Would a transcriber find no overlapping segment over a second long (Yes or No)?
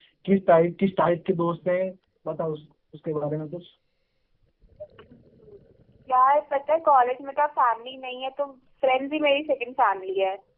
Yes